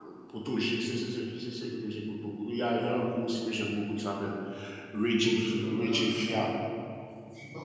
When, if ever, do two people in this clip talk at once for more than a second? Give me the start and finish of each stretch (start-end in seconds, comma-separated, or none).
5.1-6.4